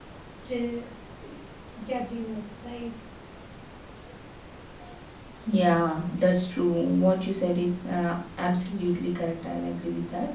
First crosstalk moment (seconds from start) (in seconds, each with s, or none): none